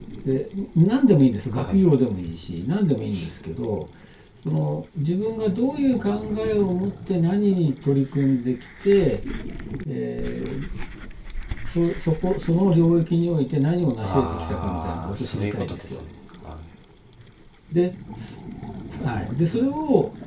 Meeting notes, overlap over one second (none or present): present